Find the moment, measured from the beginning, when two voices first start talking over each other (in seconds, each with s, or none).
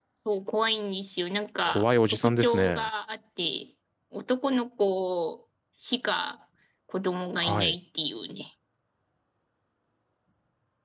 1.6 s